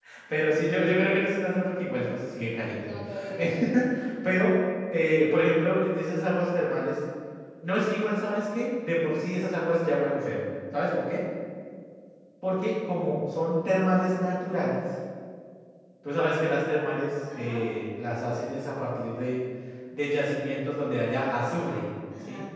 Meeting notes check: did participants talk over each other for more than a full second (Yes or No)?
No